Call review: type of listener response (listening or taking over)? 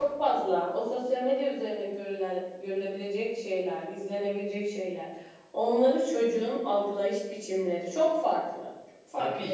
taking over